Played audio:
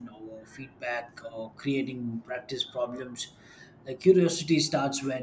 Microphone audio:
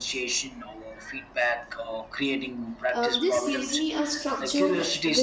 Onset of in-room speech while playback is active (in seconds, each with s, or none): 2.9 s